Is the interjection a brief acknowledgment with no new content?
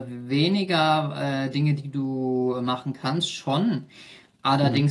Yes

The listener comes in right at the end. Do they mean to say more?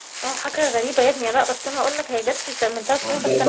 Yes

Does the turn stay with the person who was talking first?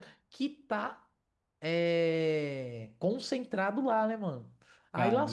Yes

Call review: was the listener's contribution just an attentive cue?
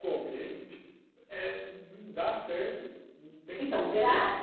No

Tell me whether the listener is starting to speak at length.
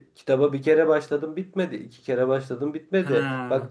No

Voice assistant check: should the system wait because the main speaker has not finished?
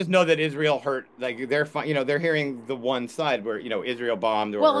No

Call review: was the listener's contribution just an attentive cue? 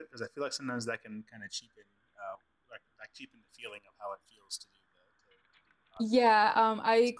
No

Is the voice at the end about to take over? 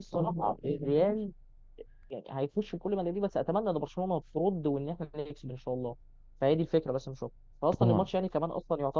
No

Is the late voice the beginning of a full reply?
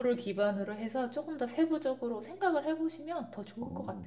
Yes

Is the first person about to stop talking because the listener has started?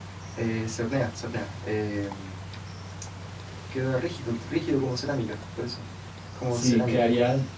Yes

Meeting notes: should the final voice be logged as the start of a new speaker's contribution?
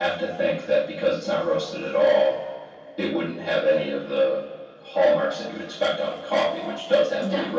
No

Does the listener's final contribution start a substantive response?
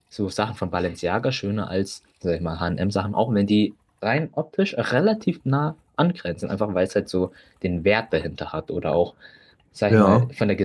No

